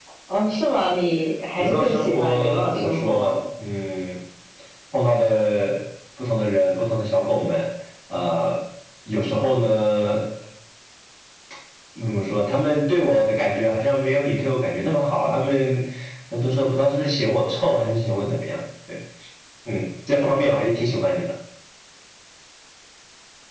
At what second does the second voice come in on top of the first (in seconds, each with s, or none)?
1.6 s